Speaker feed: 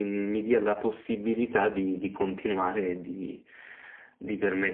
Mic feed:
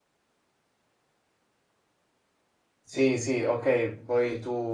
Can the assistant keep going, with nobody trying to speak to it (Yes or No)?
No